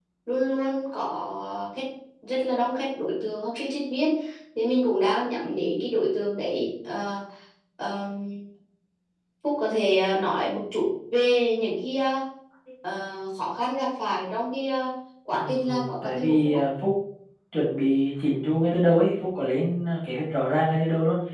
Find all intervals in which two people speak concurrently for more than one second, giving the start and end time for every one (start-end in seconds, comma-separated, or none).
15.4-16.6